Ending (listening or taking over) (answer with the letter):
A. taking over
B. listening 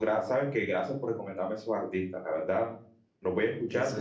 B